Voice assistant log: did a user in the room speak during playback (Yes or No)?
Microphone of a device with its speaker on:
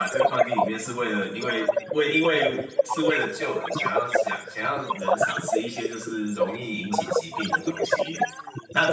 Yes